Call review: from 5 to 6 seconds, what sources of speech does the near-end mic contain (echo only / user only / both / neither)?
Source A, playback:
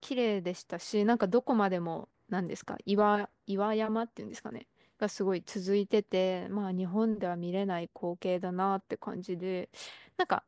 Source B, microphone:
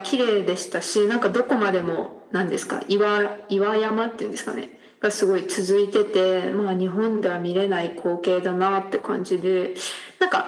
echo only